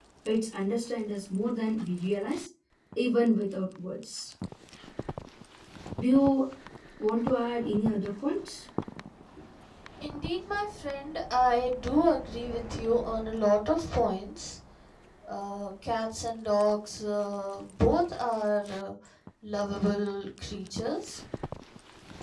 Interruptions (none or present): none